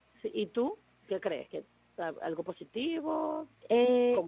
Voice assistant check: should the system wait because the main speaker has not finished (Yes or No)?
No